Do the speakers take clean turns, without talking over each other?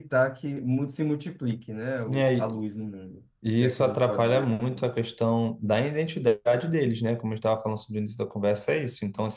No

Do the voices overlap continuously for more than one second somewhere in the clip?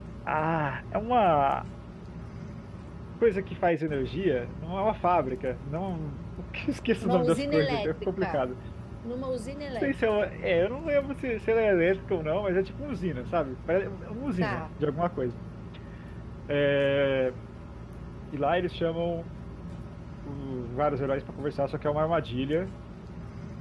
Yes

